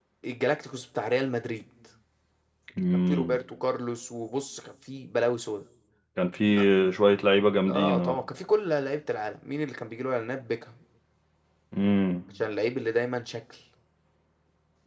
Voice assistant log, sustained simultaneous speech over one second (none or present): none